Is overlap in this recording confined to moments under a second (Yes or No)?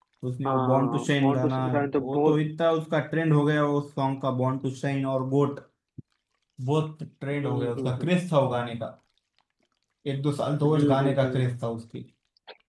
No